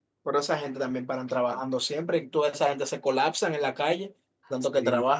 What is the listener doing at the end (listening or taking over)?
taking over